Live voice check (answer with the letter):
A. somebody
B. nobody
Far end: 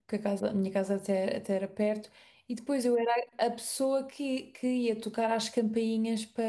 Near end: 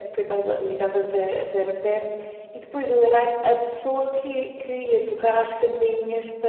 B